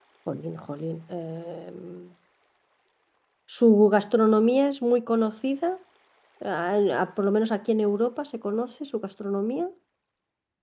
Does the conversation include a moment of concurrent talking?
No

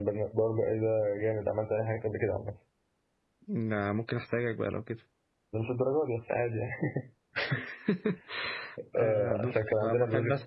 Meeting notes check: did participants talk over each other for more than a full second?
Yes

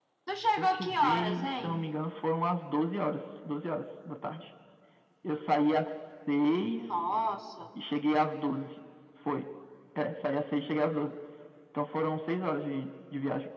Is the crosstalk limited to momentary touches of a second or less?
No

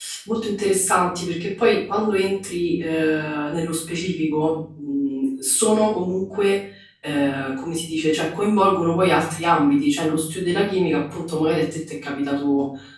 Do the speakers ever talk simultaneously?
No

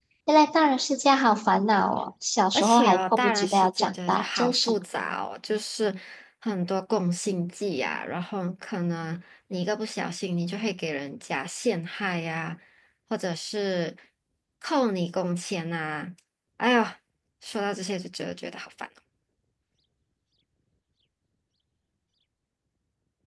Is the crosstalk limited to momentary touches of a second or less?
No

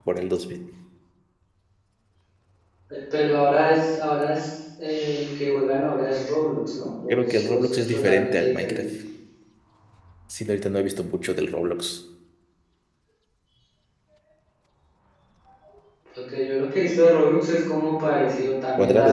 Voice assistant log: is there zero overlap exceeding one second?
No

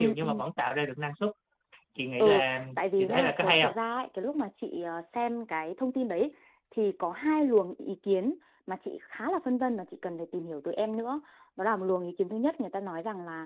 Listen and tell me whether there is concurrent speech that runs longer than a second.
Yes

